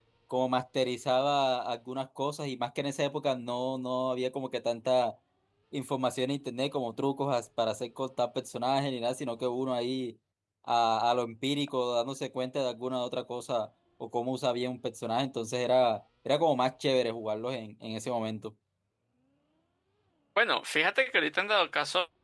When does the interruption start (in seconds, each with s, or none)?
none